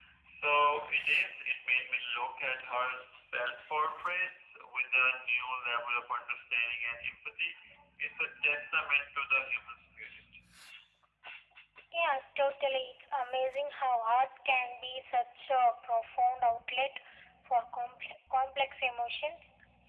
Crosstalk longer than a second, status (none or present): none